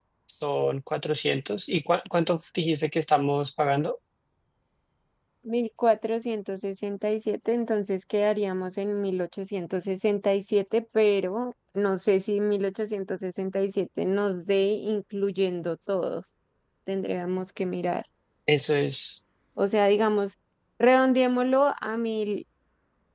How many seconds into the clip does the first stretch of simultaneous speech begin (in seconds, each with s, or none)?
none